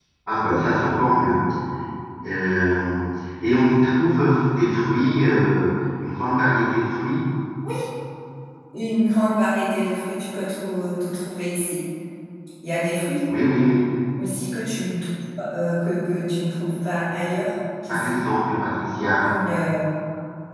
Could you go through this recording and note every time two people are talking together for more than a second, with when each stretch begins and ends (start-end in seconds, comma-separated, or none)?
none